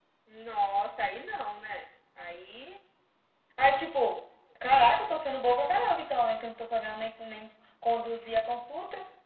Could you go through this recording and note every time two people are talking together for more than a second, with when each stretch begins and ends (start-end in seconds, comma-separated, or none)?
none